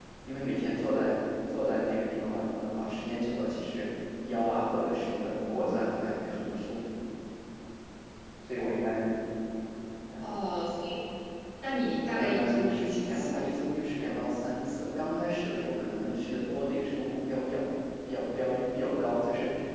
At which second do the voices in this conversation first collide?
12.1 s

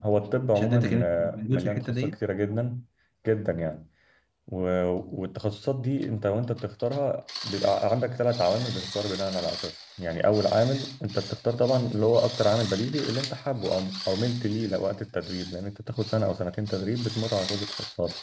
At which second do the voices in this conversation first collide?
0.6 s

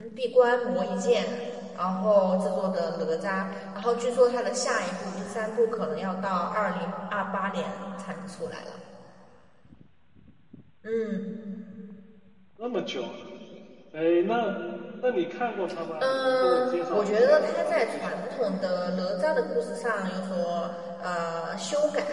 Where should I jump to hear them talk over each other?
16.0 s

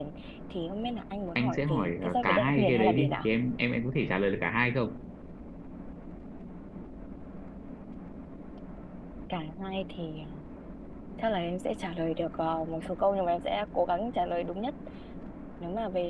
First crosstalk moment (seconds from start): 1.4 s

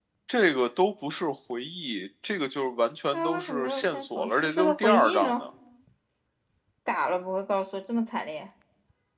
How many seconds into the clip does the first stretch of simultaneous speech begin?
3.1 s

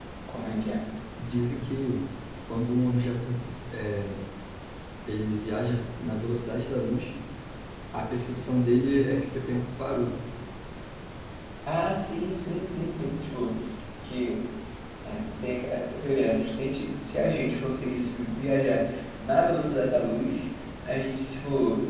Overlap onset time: none

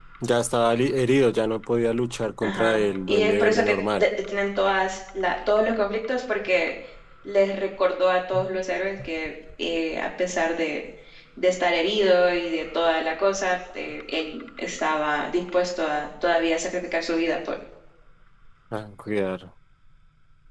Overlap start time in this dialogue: 2.4 s

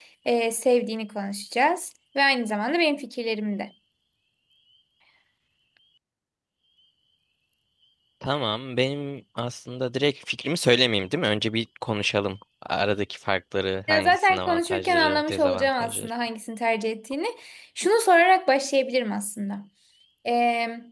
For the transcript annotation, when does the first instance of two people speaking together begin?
13.9 s

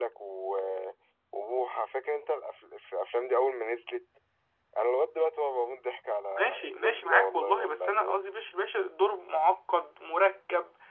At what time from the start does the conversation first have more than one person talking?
6.4 s

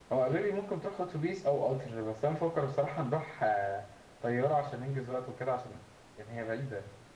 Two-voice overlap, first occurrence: none

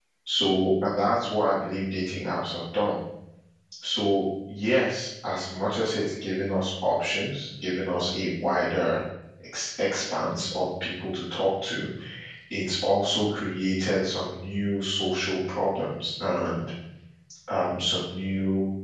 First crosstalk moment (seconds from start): none

